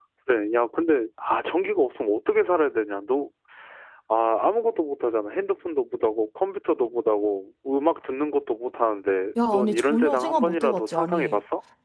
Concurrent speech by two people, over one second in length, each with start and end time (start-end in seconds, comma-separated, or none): 9.5-11.3